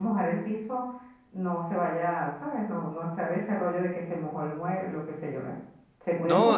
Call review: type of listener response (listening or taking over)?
taking over